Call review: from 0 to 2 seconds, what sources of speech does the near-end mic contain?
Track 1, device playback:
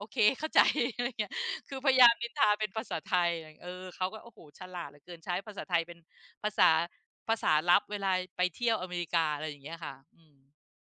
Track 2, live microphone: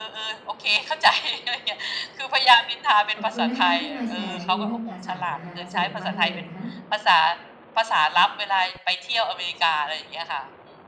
echo only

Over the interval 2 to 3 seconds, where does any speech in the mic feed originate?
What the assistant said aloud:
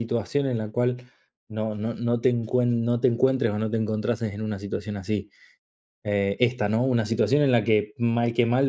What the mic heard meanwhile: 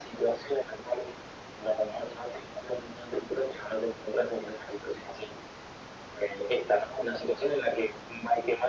echo only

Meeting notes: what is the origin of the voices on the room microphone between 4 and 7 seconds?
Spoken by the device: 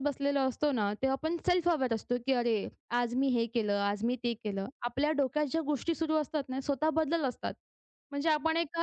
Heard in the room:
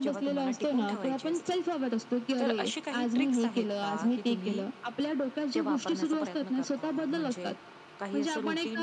both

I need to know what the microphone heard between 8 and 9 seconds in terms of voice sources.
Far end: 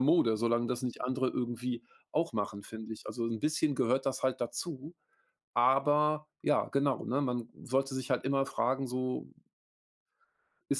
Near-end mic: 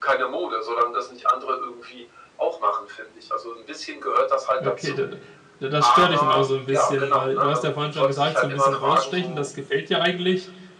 both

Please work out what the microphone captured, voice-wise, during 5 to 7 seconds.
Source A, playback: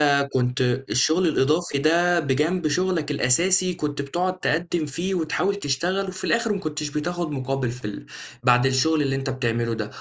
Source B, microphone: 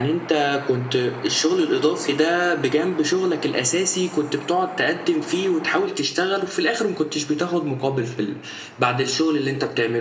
echo only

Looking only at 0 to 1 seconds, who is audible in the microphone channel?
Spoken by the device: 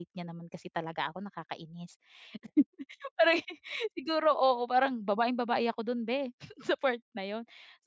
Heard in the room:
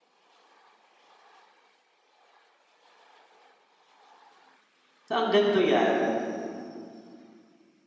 neither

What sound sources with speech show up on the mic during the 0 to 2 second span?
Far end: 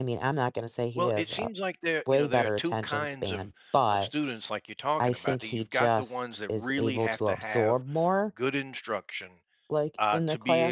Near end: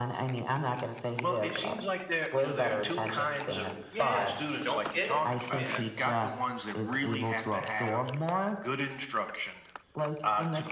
echo only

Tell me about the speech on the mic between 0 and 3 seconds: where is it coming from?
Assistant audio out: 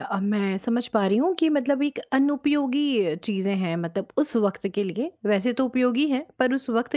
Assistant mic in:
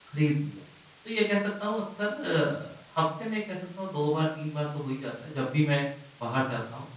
user only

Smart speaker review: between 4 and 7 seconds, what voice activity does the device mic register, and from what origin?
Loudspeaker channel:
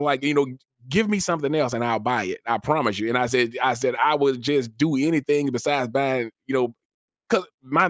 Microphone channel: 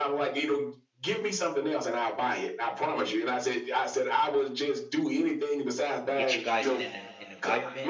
both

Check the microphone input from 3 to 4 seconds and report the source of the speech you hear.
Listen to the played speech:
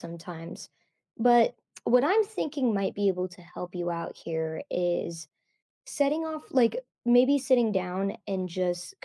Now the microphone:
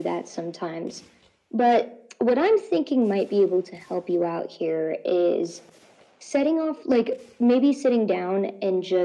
echo only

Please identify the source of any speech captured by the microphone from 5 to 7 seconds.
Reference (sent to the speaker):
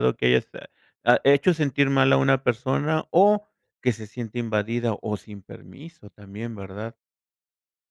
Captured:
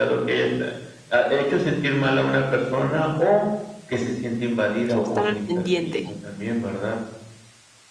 both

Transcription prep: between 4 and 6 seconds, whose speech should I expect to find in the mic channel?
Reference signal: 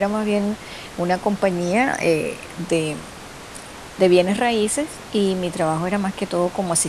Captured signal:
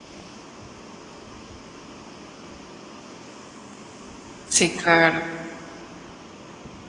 user only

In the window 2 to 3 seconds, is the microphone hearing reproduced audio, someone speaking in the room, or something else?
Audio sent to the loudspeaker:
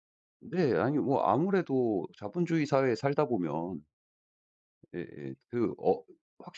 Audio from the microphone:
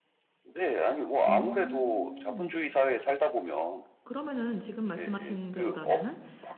both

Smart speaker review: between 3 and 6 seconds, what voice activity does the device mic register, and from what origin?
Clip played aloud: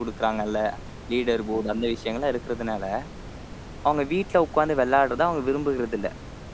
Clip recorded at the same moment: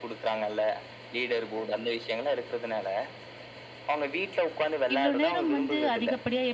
both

